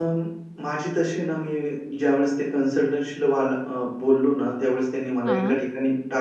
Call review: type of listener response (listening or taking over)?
listening